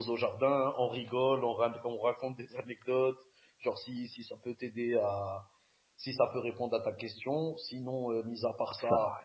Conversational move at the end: listening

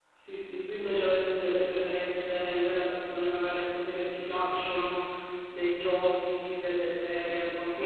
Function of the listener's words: taking over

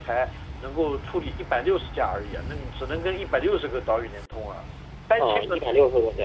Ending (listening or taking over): taking over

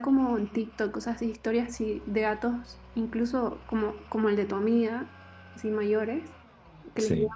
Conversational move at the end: listening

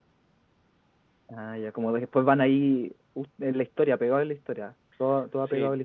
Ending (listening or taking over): taking over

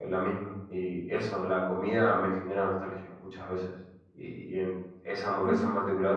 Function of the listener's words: listening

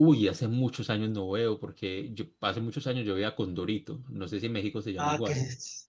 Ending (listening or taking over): taking over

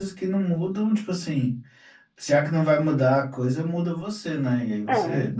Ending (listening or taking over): listening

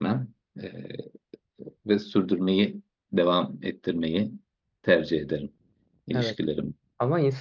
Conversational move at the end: taking over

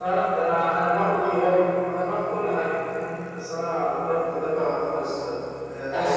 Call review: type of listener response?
listening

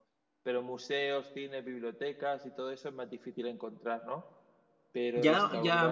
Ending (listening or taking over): taking over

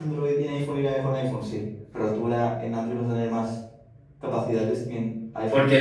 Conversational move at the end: taking over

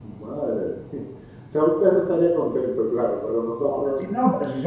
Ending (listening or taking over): taking over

